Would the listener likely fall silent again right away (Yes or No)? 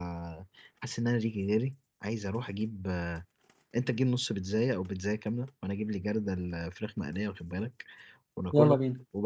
Yes